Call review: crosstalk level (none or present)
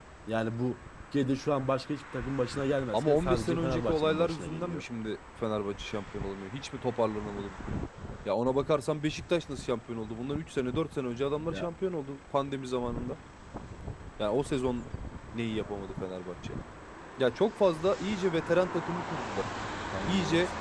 present